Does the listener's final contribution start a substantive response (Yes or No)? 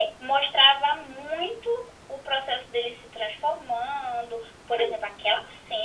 No